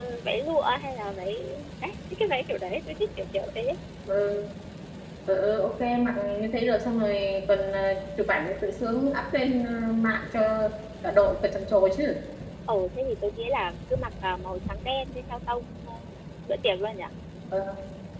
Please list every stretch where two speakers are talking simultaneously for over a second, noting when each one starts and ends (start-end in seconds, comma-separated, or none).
none